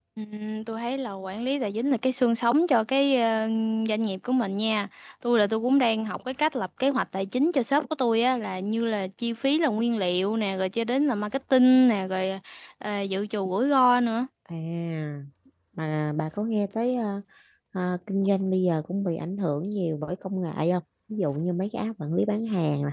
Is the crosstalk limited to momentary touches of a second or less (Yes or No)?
Yes